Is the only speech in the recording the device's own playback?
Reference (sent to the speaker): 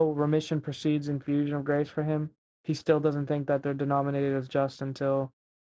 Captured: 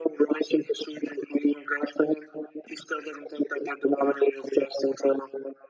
Yes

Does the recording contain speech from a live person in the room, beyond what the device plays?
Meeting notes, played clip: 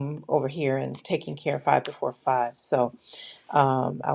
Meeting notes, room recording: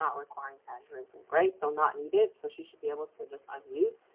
Yes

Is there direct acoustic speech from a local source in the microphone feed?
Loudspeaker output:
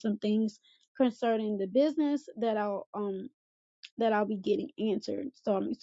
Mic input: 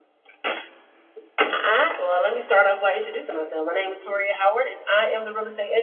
Yes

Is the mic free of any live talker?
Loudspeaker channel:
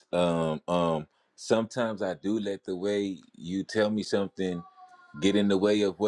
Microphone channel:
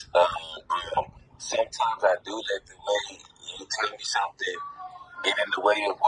Yes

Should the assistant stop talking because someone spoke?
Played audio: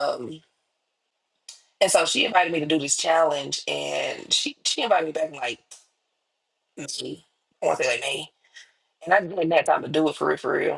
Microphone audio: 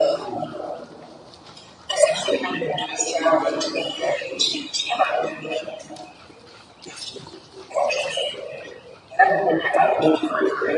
No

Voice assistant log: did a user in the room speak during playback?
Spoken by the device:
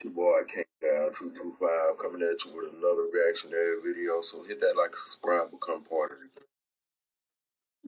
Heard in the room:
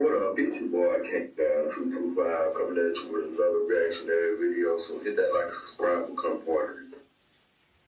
No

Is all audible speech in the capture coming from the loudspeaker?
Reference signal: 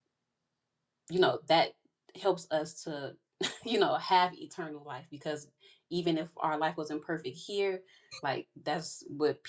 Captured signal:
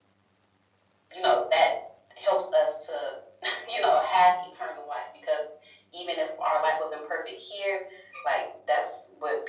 Yes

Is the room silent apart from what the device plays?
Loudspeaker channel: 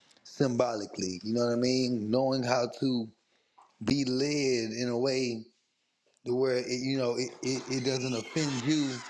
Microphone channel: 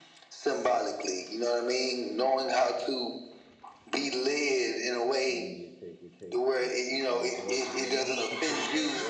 No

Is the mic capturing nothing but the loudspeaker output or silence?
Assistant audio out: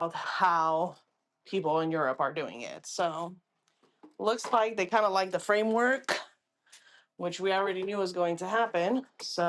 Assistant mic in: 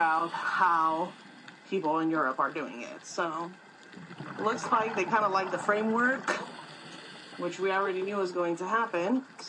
Yes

